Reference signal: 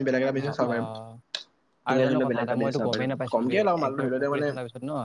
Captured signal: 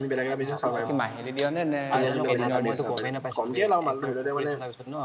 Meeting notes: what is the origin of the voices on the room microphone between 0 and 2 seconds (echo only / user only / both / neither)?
both